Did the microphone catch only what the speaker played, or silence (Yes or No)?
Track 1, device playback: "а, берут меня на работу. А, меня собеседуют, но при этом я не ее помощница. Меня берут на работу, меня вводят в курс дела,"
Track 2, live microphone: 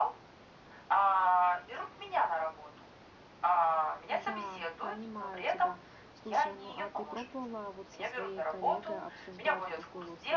No